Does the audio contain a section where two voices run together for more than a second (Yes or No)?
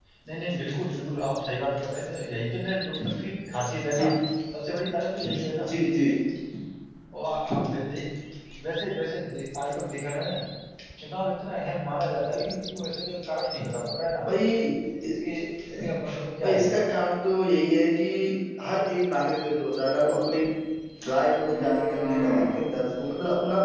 No